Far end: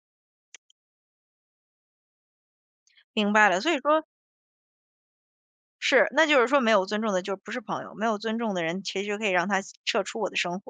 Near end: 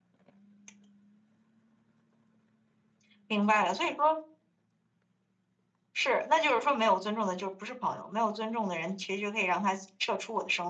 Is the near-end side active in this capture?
No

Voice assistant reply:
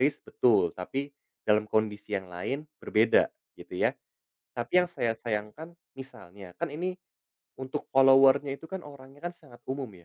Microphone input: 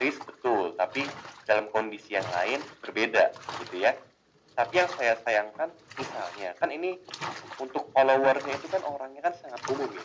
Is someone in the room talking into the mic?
No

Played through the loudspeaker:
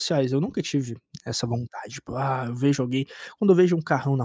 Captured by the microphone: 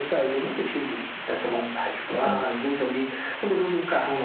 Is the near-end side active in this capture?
Yes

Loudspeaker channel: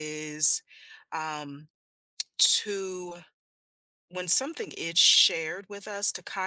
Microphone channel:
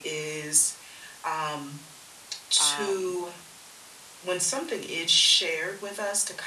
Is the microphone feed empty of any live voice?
No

